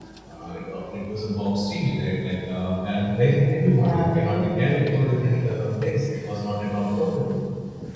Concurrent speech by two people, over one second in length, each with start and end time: 3.8-5.5

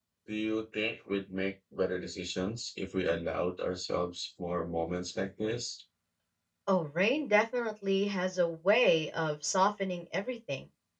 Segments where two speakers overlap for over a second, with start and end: none

